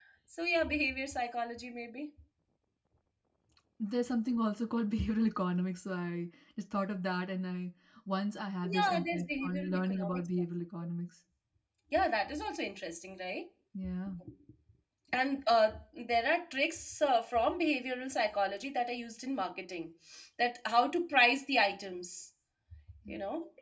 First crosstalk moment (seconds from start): 8.6 s

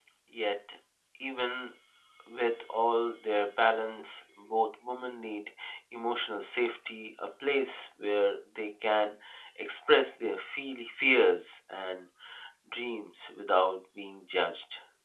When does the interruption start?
none

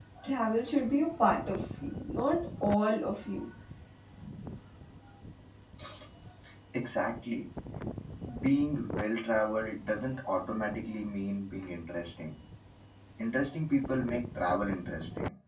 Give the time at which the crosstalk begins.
none

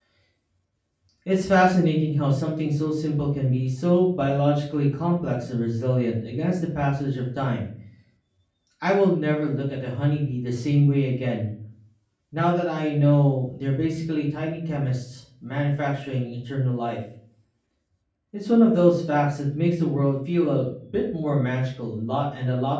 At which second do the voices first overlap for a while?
none

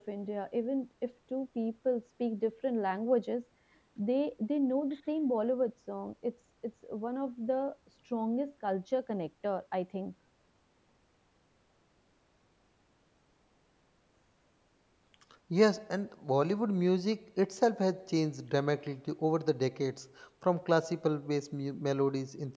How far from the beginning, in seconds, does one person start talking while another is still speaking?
none

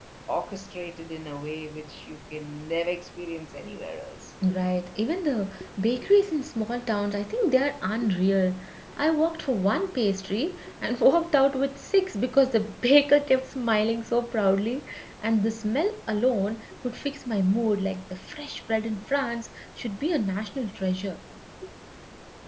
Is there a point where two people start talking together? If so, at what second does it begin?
none

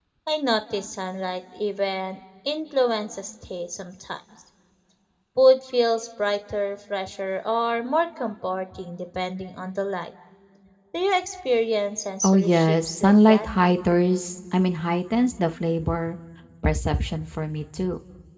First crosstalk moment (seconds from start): 12.2 s

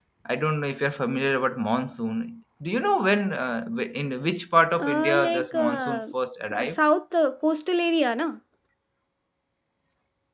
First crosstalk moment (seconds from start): 4.8 s

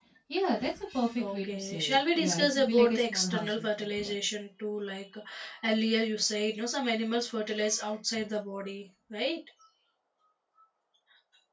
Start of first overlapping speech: 1.2 s

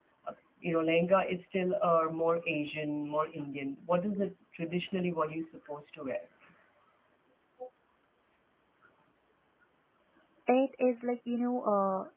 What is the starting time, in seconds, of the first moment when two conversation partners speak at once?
none

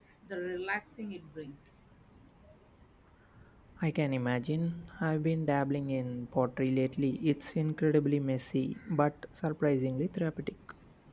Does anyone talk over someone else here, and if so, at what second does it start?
none

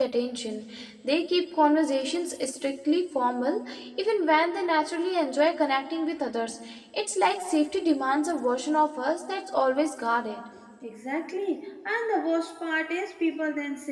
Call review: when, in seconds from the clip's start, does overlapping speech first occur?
none

